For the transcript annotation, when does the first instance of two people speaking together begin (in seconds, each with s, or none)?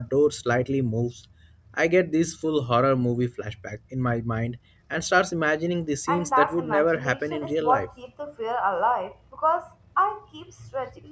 6.1 s